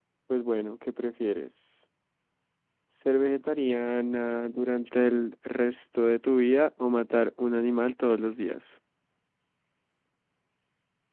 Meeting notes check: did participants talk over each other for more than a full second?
No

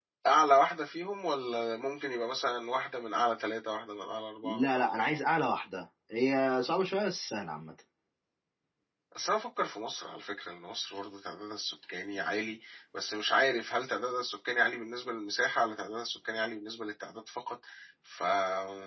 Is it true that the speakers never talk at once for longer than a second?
Yes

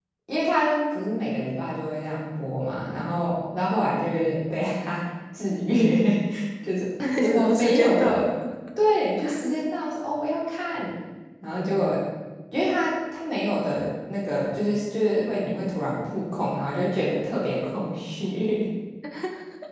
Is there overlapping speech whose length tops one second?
Yes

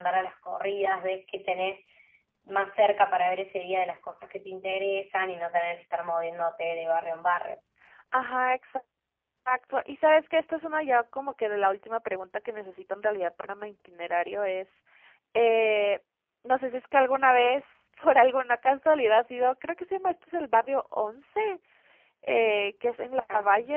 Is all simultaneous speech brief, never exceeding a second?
Yes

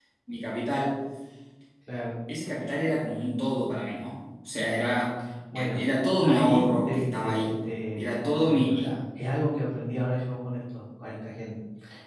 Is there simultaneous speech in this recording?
Yes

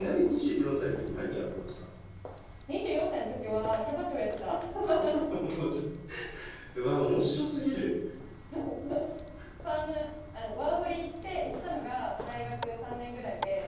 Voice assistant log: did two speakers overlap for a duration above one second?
No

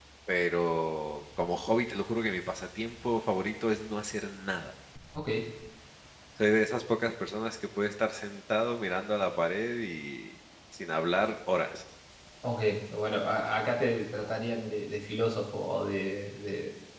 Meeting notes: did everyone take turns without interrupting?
Yes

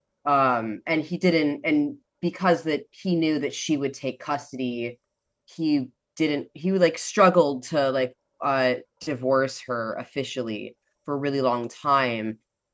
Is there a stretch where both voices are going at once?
No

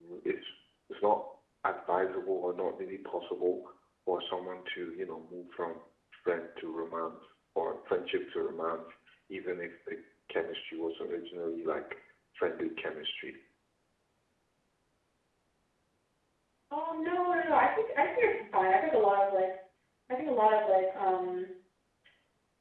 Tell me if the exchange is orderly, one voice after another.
Yes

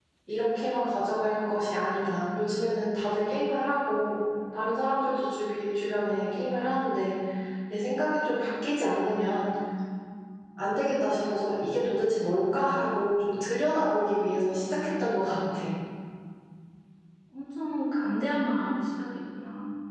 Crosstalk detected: No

